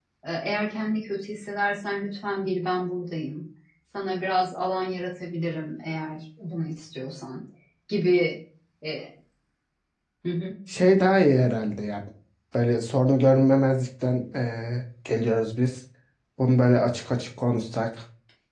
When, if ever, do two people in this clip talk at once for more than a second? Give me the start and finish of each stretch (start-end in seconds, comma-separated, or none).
none